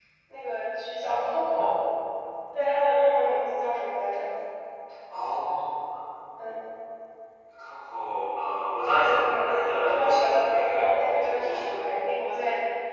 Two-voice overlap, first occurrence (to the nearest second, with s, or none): 9 s